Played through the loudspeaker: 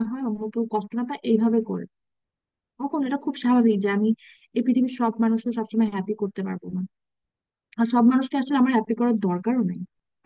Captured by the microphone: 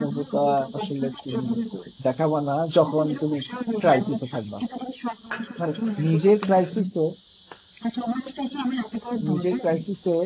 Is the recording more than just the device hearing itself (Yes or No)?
Yes